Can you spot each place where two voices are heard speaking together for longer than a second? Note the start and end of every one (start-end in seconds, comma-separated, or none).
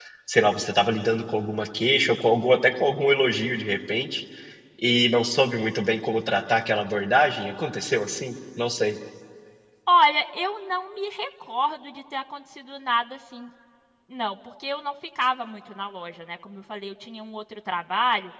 none